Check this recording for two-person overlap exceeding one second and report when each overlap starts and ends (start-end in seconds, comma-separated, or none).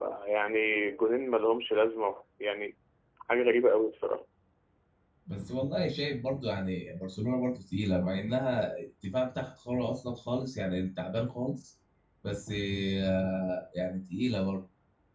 none